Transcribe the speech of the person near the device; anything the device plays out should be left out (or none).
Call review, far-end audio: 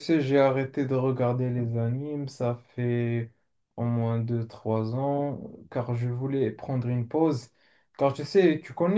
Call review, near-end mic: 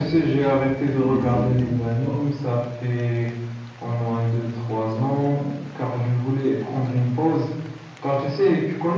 Une décennie. Wow.